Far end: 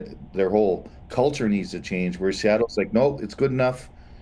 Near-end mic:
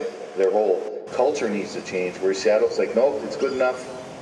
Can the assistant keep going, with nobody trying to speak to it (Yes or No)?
Yes